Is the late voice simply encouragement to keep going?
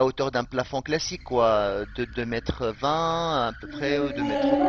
No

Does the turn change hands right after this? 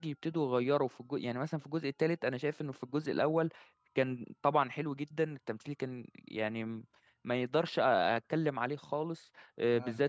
No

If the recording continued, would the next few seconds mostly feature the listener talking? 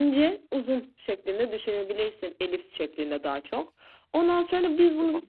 No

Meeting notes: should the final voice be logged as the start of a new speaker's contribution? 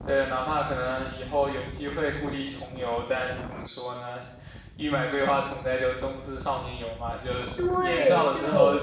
Yes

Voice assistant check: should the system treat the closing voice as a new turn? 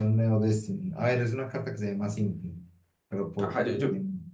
Yes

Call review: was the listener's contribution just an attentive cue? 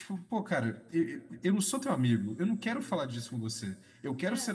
Yes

